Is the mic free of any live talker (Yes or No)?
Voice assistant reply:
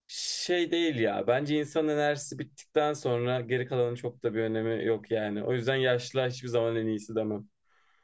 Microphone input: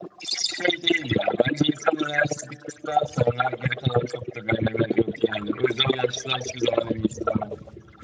Yes